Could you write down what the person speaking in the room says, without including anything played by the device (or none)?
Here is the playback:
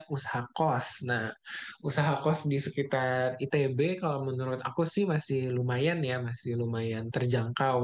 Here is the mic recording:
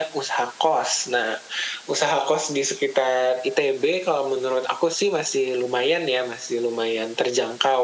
none